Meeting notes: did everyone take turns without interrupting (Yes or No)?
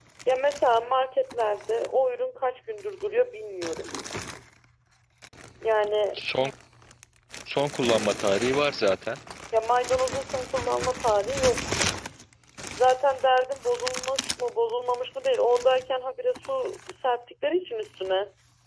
Yes